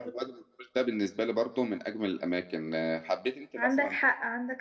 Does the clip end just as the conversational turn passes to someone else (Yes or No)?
Yes